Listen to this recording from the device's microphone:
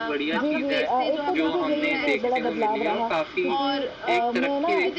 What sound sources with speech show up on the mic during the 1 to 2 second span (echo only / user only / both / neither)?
both